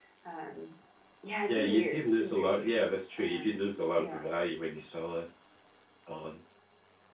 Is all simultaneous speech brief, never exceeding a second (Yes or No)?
No